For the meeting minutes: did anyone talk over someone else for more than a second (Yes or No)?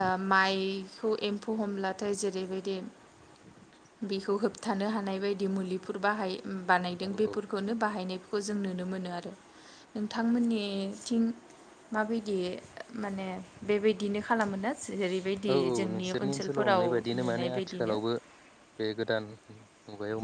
Yes